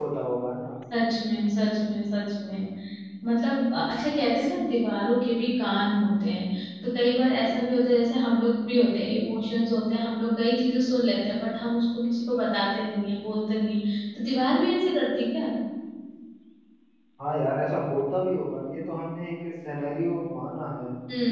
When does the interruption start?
none

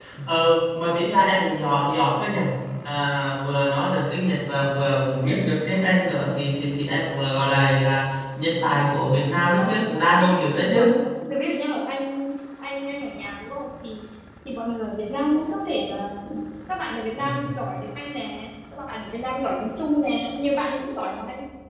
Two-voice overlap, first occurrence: 9.6 s

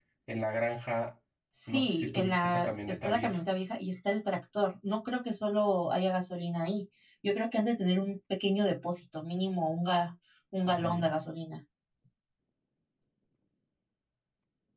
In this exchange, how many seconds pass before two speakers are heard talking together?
1.7 s

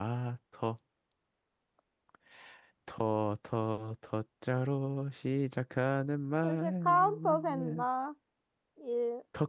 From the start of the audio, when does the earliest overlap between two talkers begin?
6.4 s

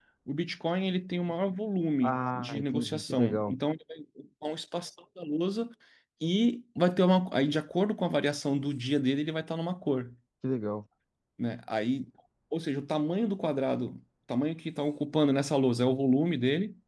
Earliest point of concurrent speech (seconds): 2.0 s

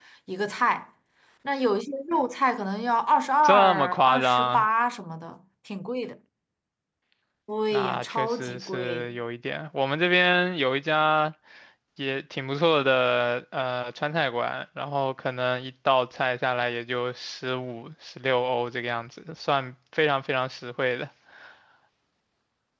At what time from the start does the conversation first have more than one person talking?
3.4 s

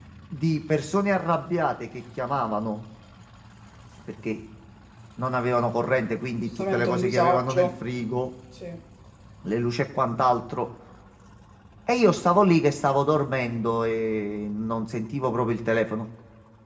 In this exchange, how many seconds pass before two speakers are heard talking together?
6.4 s

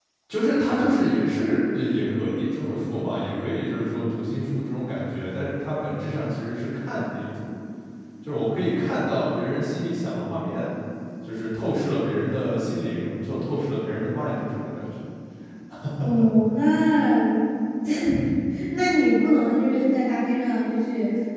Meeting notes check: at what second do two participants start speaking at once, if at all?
none

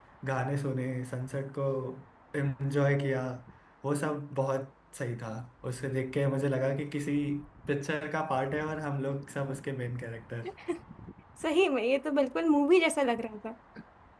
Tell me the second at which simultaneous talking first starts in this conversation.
none

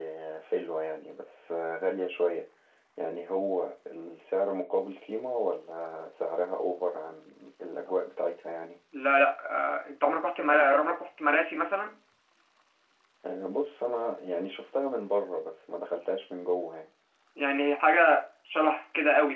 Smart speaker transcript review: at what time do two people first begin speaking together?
none

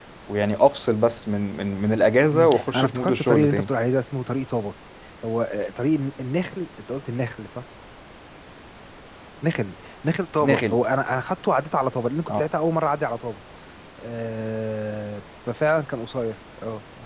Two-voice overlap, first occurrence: 2.3 s

